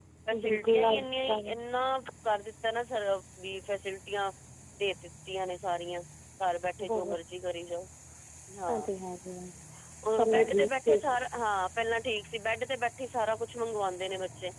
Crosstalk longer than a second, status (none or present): present